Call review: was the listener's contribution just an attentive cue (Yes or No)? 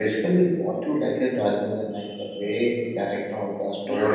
No